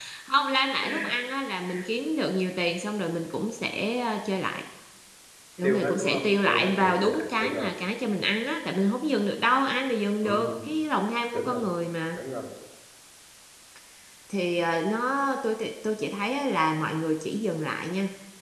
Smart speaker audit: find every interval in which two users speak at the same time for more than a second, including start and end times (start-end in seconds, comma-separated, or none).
5.6-7.7